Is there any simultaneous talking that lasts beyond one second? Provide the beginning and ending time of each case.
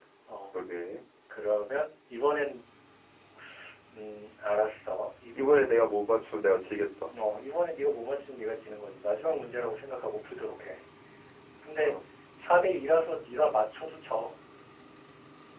none

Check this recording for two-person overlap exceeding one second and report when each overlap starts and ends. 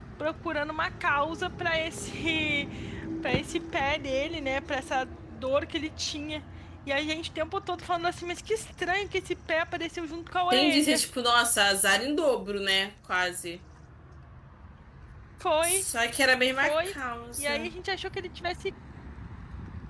none

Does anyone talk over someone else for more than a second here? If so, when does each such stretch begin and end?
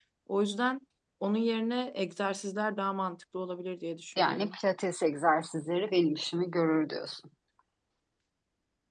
none

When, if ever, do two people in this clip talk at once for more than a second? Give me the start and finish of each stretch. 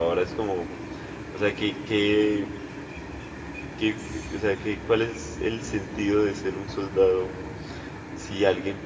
none

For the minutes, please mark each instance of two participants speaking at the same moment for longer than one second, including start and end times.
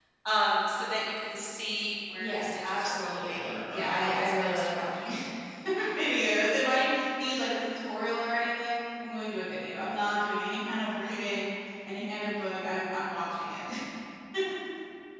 2.2-5.0

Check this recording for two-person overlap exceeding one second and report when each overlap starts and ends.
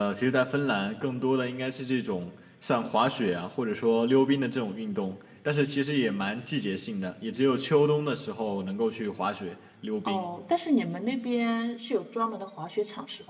none

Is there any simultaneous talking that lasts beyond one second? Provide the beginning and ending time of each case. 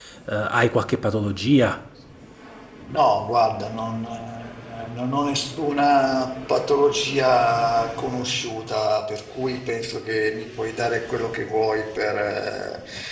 none

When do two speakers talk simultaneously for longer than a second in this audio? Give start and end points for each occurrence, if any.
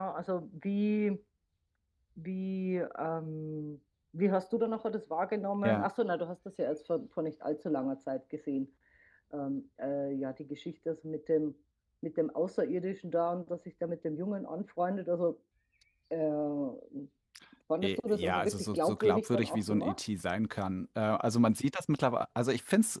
17.8-20.0

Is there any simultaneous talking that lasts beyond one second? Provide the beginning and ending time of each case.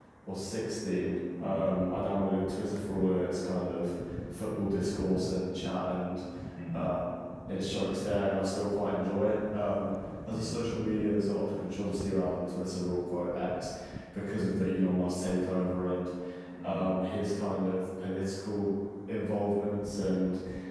none

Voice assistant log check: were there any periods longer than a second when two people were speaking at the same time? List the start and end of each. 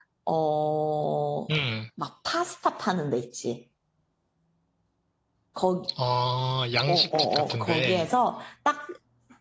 6.9-8.1

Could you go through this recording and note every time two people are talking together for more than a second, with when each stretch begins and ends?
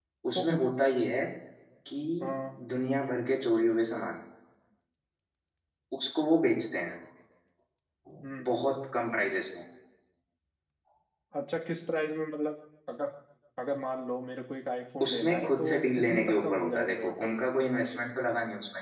15.0-17.3

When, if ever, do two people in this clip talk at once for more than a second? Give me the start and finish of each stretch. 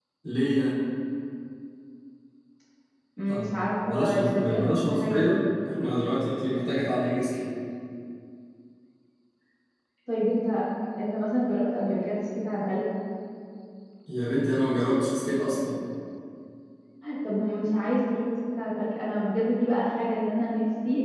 3.8-5.2

